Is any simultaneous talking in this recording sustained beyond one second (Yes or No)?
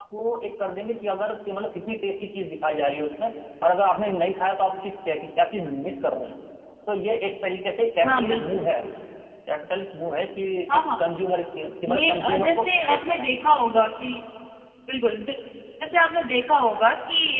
Yes